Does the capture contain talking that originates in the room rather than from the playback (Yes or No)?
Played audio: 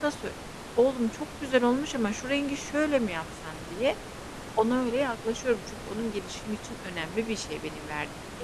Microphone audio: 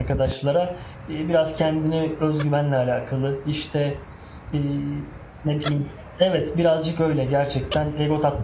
Yes